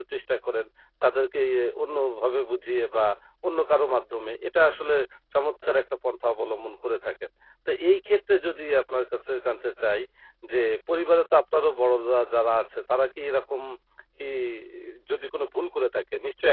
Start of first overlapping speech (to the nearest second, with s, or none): none